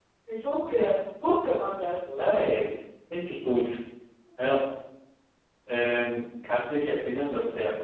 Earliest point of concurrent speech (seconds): none

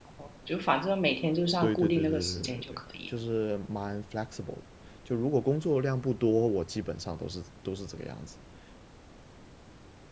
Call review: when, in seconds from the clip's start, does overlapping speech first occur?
1.6 s

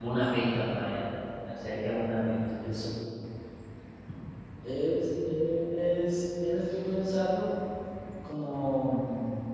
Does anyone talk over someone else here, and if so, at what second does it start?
none

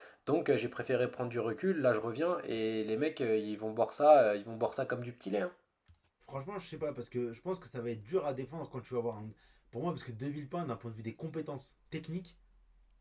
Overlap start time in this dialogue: none

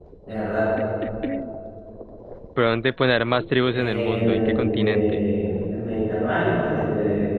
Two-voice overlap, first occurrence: 3.7 s

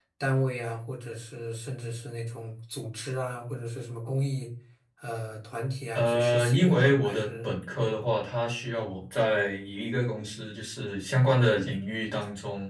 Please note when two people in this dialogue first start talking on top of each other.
5.9 s

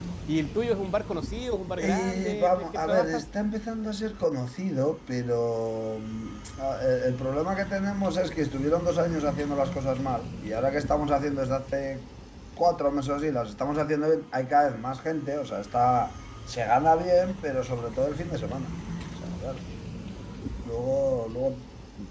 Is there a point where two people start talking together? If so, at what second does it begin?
1.8 s

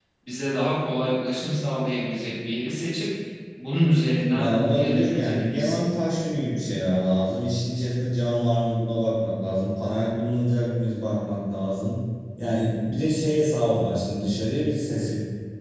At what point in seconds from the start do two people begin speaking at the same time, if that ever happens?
4.3 s

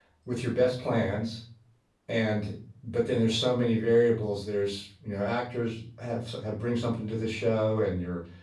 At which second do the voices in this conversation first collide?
none

